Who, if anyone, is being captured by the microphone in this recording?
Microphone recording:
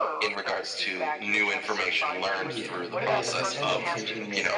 both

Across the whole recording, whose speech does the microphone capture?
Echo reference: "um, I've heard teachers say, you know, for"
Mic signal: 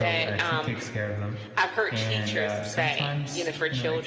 both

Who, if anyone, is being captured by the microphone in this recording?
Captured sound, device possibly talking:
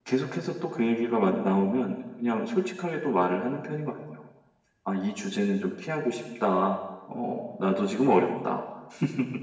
echo only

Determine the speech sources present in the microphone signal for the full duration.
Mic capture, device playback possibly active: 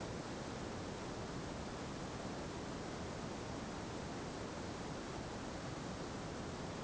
neither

